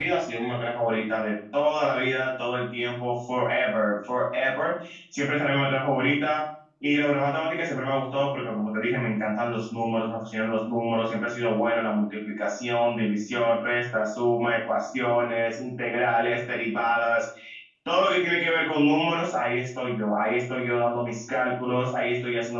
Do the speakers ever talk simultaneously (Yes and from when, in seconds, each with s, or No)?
No